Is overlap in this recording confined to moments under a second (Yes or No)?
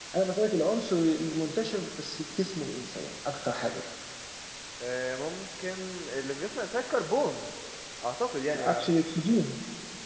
Yes